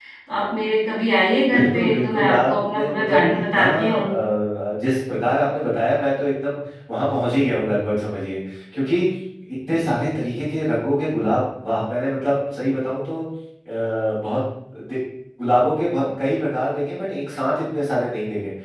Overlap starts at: 1 s

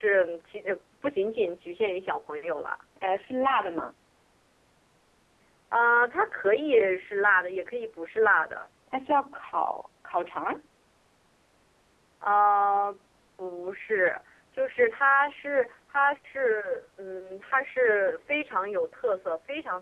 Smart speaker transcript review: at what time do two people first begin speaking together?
none

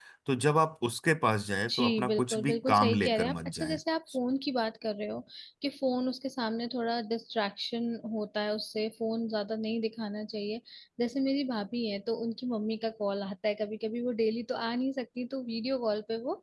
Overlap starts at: 2 s

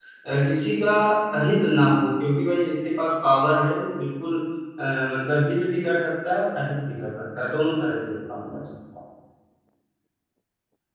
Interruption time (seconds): none

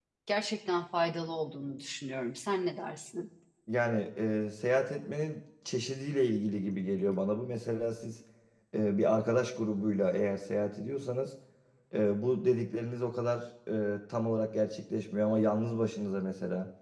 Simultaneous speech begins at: none

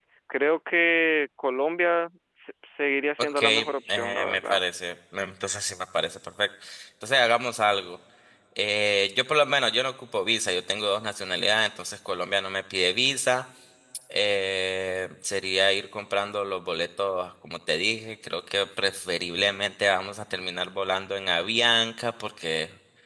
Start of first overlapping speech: 3 s

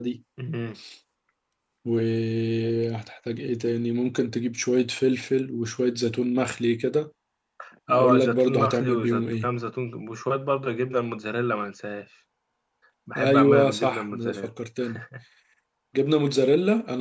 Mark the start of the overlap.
8 s

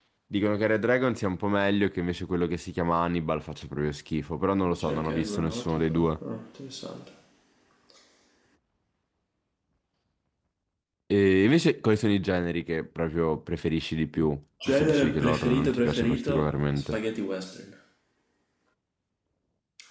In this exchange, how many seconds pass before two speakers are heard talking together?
5 s

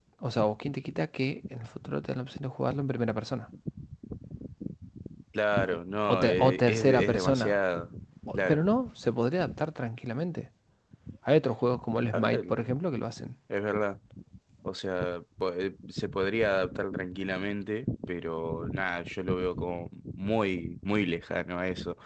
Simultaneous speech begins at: 6 s

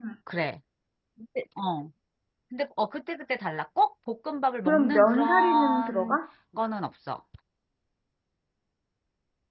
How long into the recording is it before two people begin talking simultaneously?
5 s

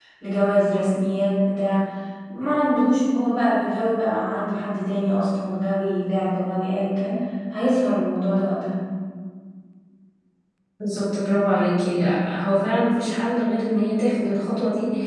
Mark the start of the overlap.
none

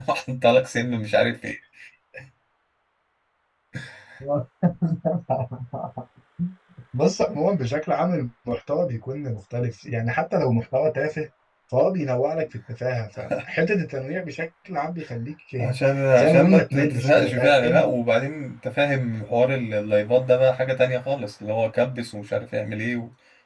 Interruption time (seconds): 16 s

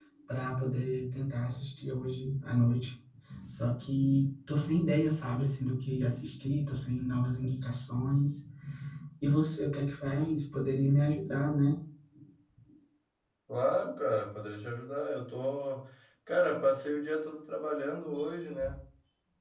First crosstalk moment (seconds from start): none

